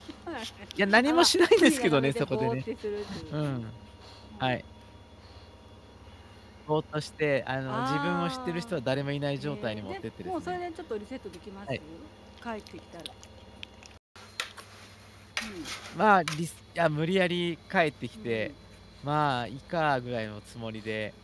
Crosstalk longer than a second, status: present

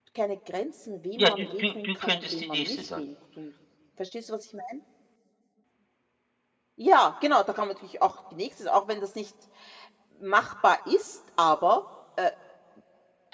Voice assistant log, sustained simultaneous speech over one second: present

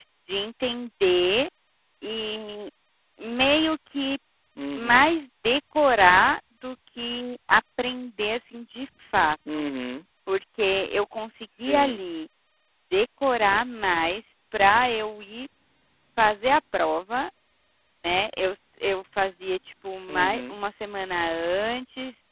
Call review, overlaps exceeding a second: none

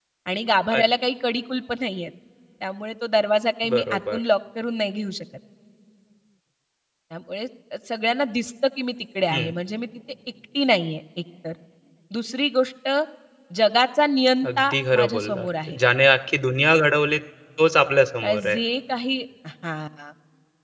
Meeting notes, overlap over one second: present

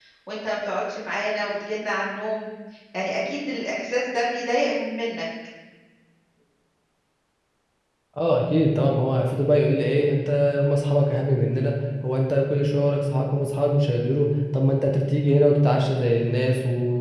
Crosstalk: none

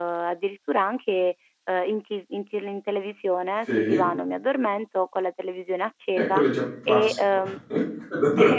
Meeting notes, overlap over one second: none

